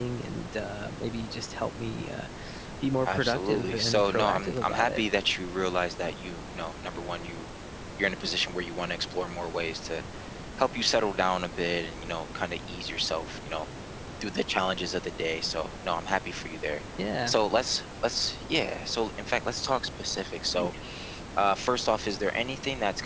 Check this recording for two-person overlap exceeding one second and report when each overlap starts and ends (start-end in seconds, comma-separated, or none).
3.0-5.0